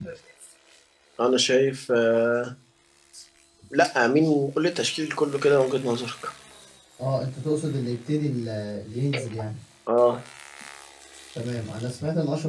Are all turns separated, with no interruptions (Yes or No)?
Yes